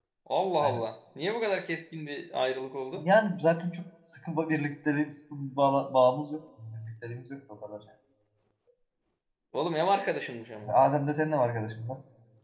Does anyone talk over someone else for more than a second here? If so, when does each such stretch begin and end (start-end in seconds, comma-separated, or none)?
none